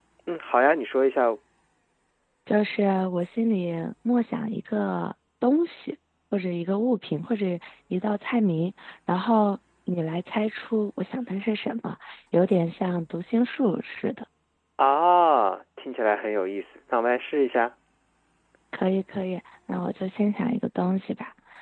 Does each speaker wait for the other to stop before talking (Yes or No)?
Yes